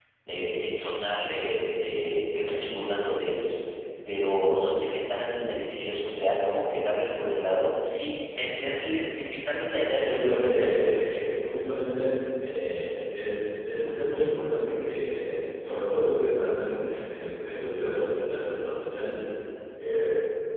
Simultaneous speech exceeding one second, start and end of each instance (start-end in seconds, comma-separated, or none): 10.0-11.3